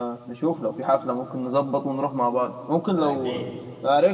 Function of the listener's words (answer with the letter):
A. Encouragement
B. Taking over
A